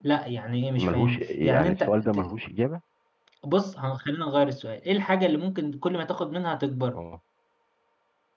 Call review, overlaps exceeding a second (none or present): present